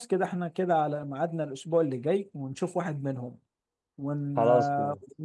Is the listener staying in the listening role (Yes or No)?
Yes